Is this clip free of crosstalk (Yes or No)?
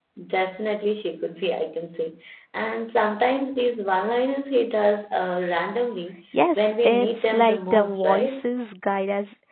No